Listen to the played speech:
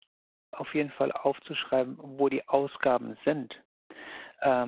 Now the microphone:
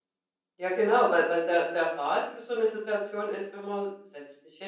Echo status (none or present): none